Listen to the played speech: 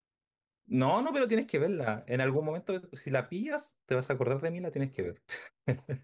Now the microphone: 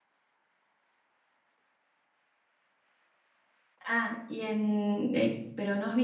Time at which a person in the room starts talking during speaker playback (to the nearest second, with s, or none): 4 s